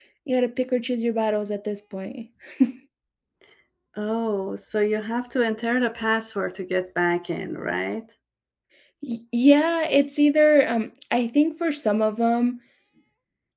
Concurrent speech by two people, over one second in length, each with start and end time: none

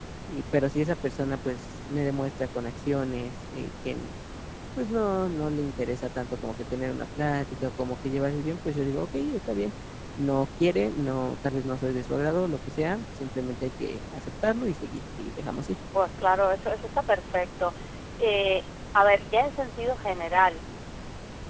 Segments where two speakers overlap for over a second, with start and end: none

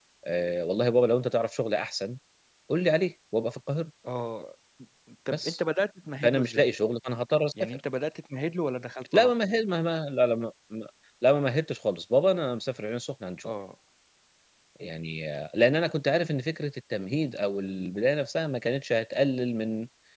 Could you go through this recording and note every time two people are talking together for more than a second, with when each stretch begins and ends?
none

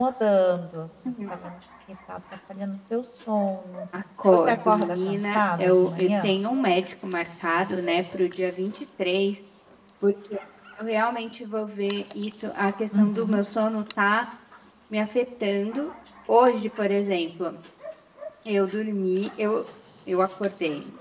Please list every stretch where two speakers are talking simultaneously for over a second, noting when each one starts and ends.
4.3-6.3

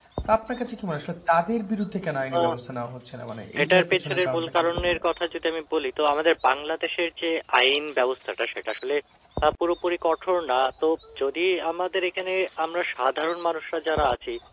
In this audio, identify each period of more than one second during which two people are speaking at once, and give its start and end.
3.6-5.0

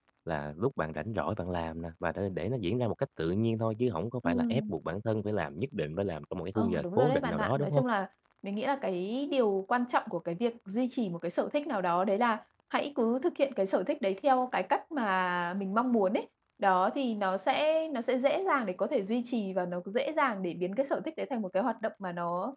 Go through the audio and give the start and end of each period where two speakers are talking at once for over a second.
6.5-7.8

